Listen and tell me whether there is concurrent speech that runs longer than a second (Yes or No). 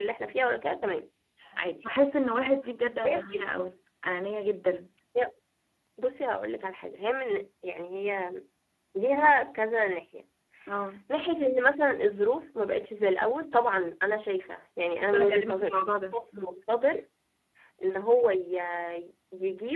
Yes